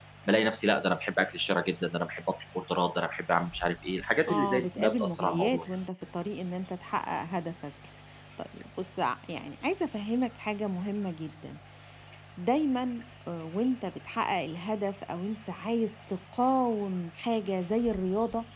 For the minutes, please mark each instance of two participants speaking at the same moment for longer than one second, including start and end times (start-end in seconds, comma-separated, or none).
4.3-5.7